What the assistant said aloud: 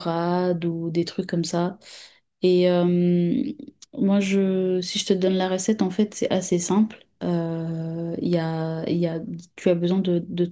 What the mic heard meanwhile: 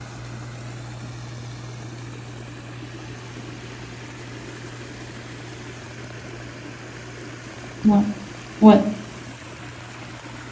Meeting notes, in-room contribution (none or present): present